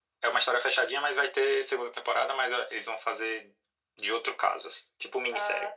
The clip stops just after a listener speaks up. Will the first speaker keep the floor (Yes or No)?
No